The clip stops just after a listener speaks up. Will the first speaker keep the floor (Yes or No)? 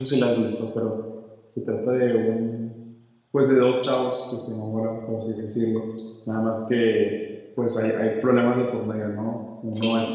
Yes